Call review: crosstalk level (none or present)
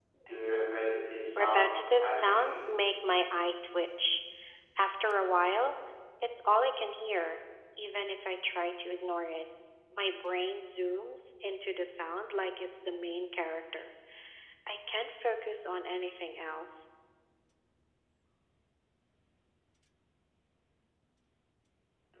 present